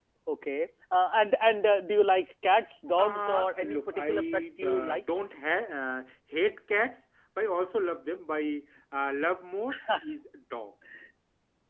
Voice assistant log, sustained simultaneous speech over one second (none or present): present